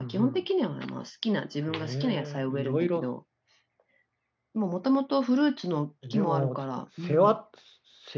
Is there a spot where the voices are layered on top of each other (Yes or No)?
Yes